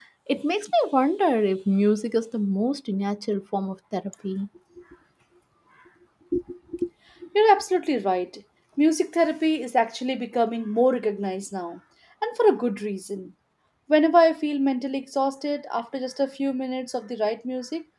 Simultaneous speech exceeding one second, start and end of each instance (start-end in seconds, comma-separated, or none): none